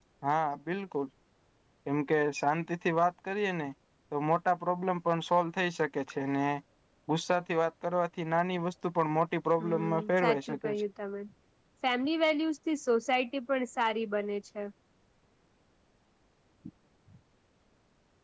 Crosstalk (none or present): present